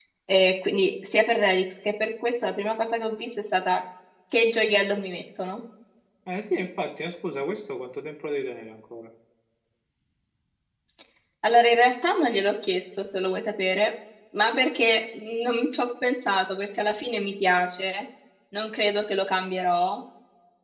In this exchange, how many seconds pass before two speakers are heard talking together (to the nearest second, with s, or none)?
none